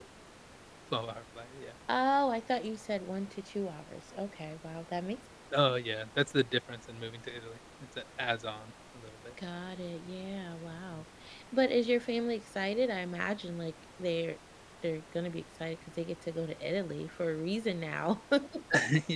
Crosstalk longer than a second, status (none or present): none